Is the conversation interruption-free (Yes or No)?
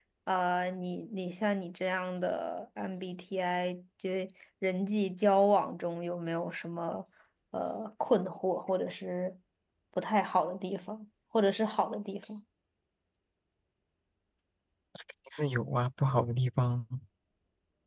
Yes